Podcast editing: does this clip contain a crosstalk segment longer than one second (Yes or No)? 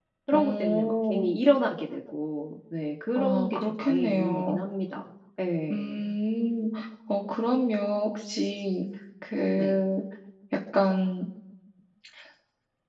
Yes